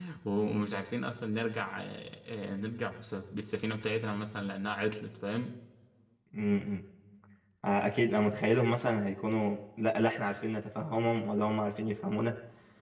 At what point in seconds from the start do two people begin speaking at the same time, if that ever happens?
none

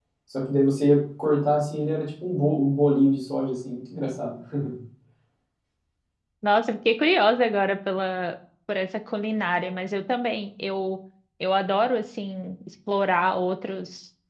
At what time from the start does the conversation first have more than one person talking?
none

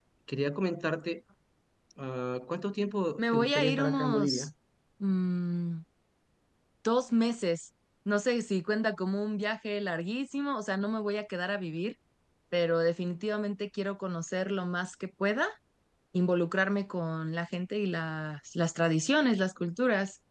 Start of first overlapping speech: 3 s

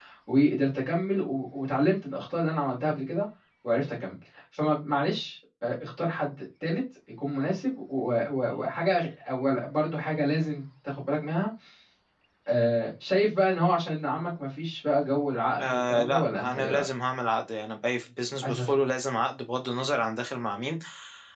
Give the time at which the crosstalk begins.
16 s

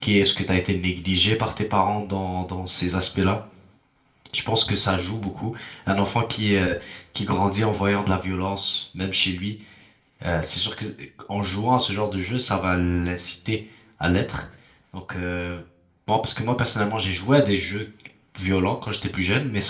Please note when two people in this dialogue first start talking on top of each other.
none

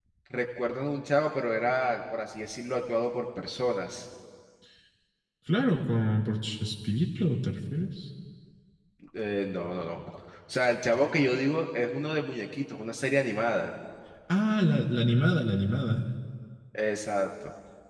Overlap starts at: none

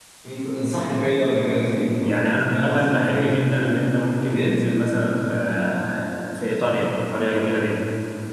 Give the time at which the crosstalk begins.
2 s

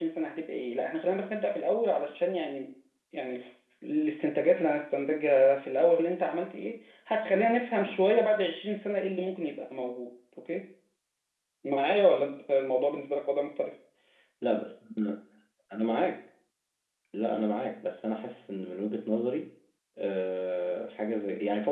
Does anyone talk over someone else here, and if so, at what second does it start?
none

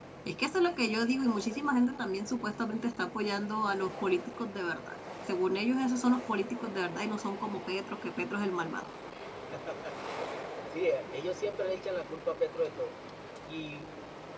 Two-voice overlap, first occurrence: none

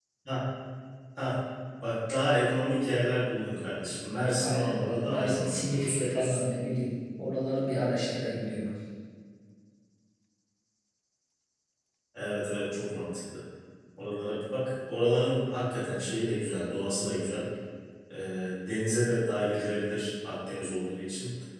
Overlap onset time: 4 s

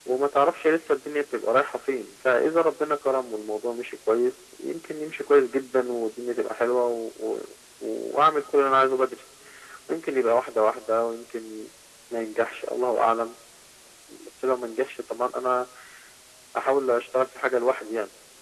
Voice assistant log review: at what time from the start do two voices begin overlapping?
none

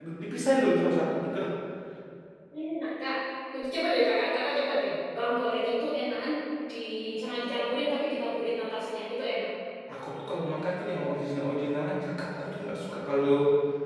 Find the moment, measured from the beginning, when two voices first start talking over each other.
none

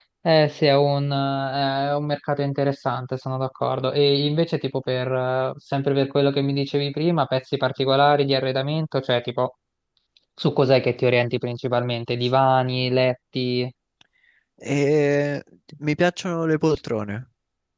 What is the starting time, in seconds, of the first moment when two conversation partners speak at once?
none

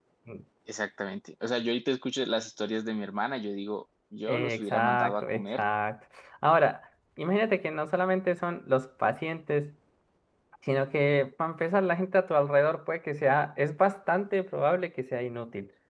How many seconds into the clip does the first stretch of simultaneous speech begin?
4 s

